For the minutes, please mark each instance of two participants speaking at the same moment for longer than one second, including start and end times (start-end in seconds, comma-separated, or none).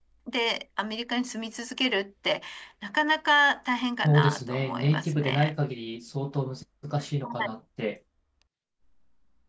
4.0-5.5